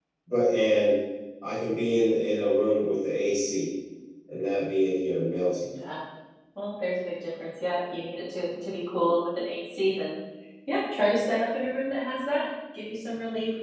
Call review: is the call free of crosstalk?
Yes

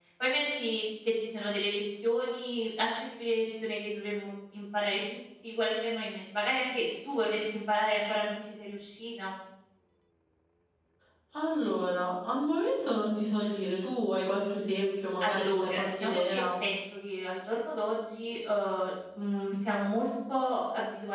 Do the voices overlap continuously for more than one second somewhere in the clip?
Yes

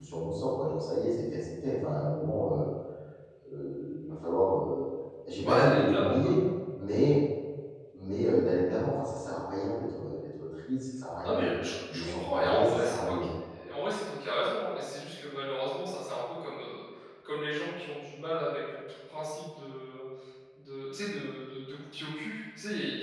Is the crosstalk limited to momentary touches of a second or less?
No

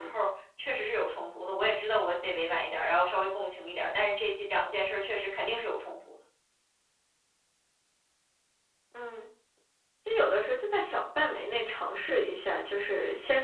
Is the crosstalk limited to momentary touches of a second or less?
Yes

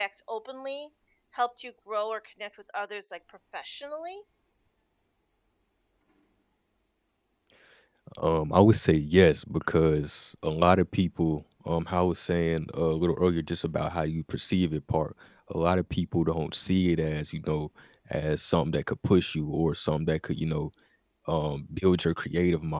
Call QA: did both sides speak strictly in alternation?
Yes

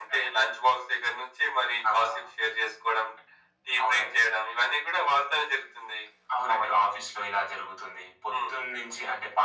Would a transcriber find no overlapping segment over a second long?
Yes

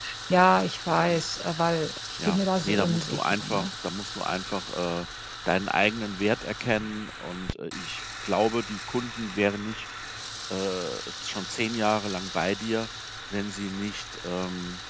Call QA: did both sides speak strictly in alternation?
No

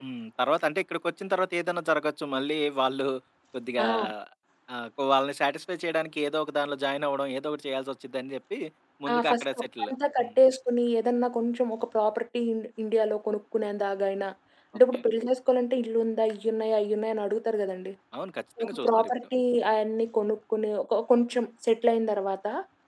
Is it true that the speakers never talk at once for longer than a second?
No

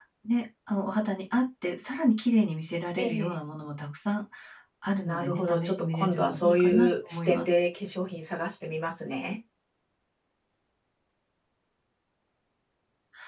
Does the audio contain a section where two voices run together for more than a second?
Yes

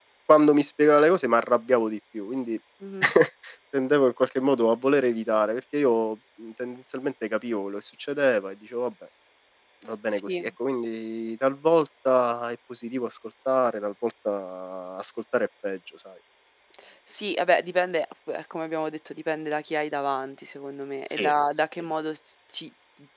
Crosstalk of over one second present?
No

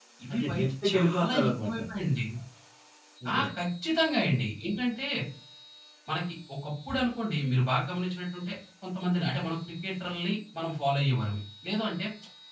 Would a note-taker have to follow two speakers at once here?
Yes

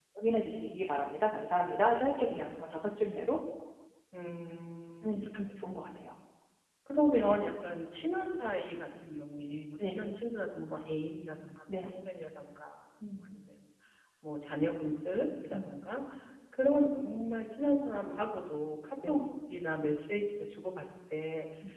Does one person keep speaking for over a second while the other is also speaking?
No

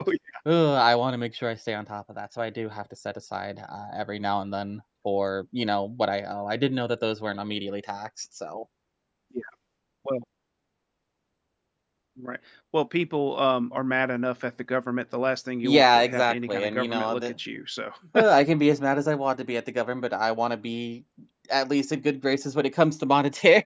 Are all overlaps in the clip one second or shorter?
No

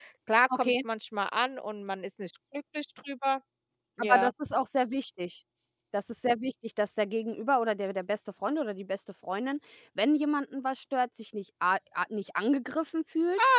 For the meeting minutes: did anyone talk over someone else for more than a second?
No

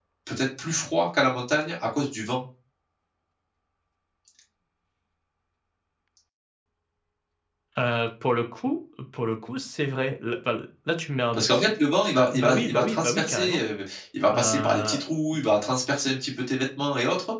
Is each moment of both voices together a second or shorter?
No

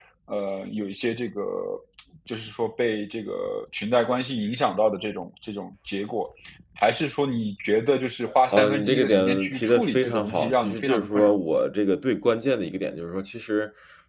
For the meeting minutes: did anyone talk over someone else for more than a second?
Yes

